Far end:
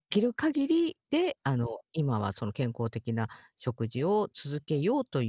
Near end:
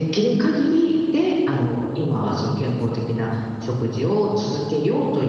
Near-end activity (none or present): none